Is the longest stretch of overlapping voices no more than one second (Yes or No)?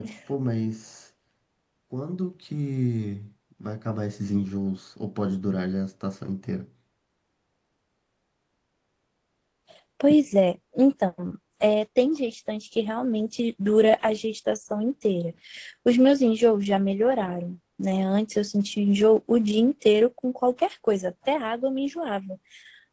Yes